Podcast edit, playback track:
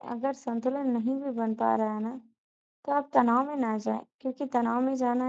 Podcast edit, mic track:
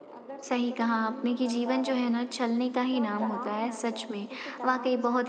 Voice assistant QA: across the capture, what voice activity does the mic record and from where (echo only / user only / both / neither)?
both